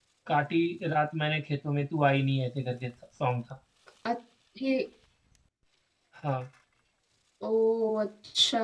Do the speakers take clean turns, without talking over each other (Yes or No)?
Yes